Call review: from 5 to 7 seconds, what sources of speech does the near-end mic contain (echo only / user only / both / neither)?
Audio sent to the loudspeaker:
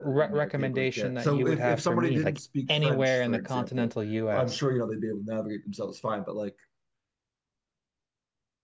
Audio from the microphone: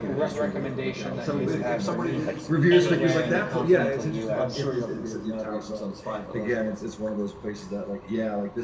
both